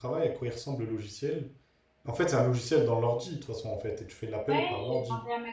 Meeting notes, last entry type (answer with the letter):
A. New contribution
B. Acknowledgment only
A